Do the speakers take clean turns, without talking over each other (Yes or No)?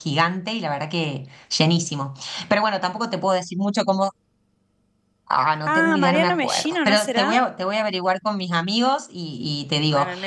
No